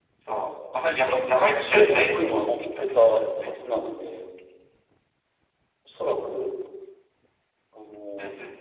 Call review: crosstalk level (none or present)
present